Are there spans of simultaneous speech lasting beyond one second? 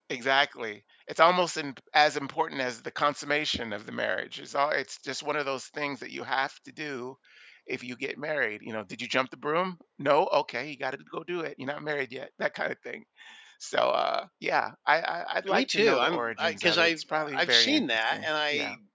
Yes, from 15.5 s

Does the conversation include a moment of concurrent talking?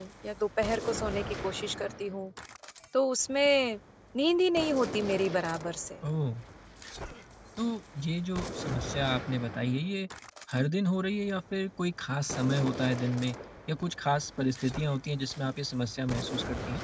No

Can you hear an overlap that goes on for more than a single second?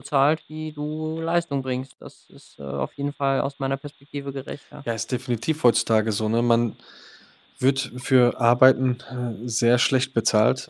No

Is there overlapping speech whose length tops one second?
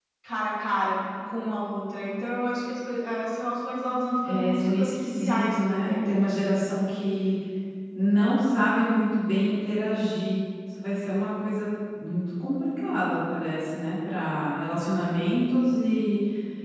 Yes, from 4.2 s

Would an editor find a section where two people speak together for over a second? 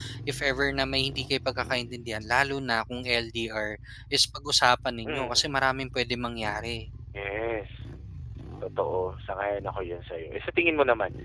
No

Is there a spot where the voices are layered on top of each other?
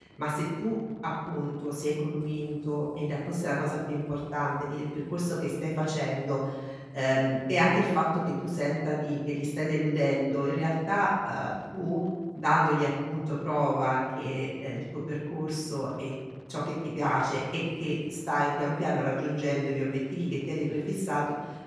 No

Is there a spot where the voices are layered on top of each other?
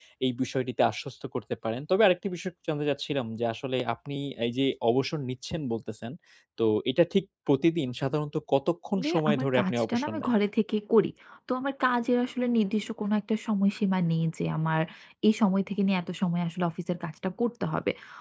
Yes, from 9.0 s

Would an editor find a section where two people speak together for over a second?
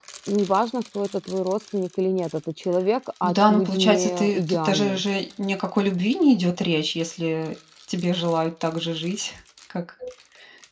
Yes, from 3.2 s

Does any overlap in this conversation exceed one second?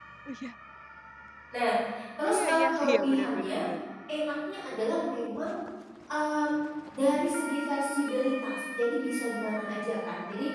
Yes, from 2.2 s

